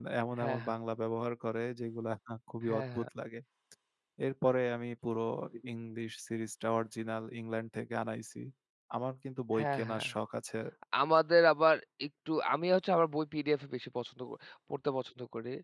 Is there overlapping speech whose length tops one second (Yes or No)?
No